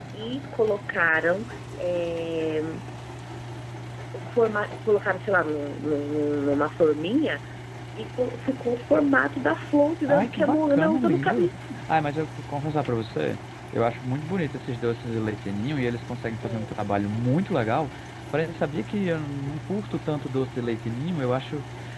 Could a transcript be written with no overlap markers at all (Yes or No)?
No